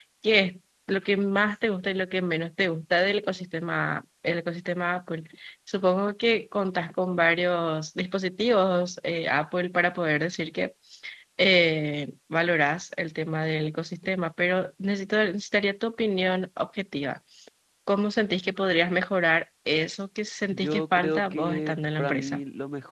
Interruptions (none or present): present